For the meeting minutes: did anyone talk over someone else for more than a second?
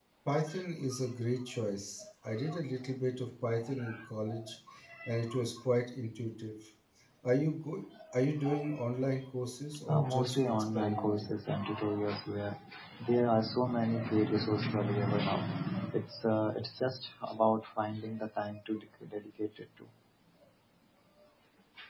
Yes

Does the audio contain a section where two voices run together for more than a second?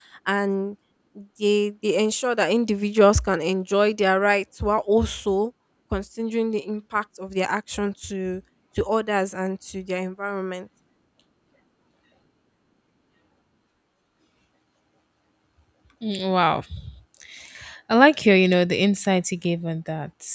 No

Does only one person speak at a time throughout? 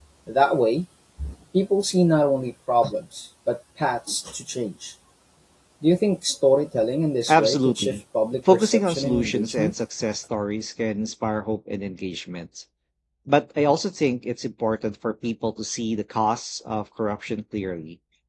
No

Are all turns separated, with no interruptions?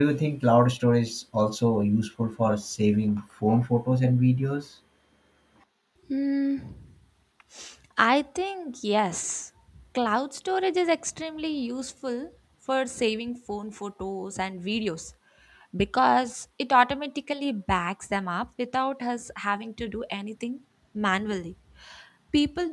Yes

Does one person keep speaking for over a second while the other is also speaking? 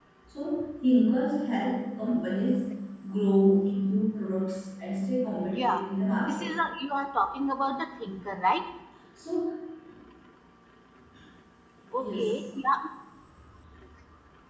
No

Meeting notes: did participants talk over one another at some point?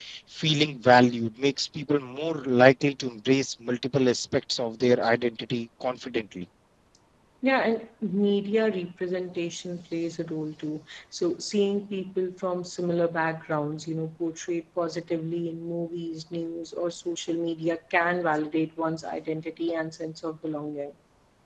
No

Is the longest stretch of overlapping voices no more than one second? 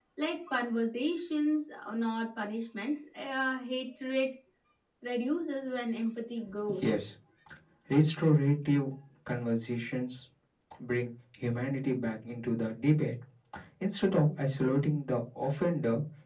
Yes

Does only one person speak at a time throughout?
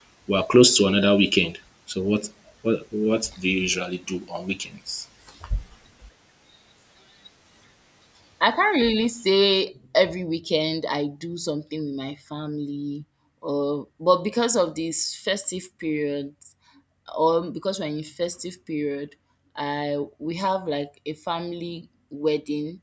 Yes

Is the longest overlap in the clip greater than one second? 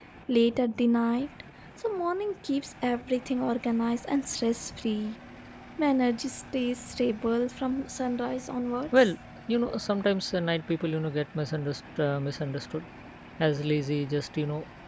No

